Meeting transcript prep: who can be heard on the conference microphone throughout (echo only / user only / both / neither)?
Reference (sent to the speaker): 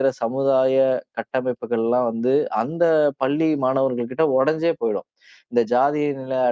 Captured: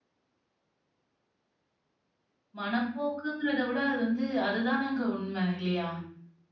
user only